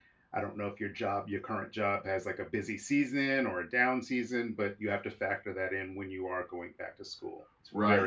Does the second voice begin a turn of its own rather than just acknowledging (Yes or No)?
Yes